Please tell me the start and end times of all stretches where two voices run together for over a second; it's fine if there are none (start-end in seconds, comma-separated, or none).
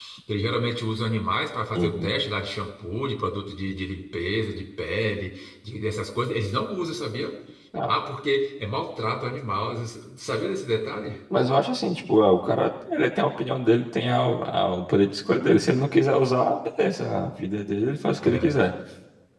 none